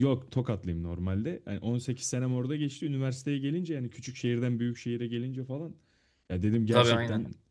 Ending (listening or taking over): listening